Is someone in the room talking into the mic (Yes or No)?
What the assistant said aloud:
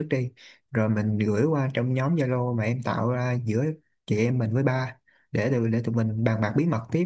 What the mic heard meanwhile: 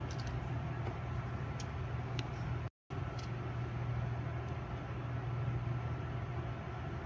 No